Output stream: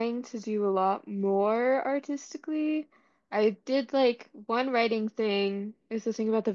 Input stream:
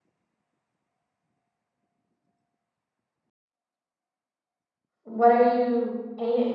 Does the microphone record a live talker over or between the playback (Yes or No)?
Yes